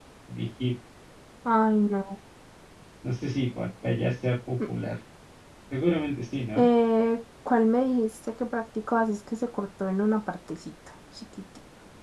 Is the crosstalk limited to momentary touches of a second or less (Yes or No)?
Yes